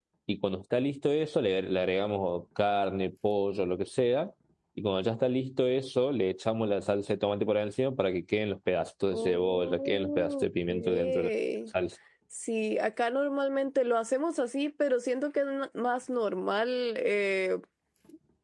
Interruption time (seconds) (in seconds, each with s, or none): 9.1 s